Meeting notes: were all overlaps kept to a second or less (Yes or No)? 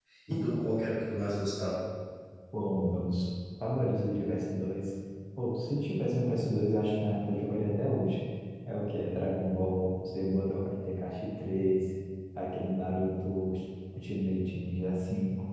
Yes